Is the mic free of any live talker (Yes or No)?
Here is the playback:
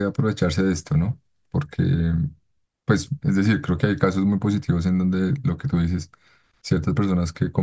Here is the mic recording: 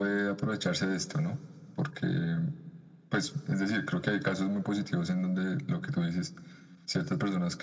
Yes